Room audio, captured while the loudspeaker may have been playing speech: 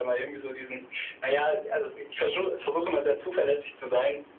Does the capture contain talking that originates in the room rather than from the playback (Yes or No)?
No